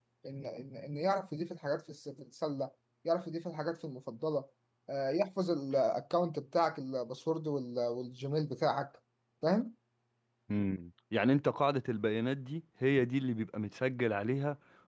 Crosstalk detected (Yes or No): No